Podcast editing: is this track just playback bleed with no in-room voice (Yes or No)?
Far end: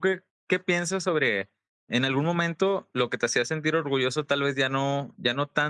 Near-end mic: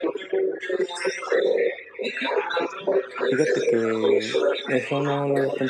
No